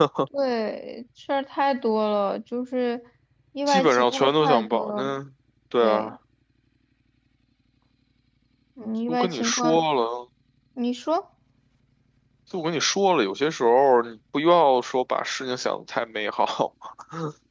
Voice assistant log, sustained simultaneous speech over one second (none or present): present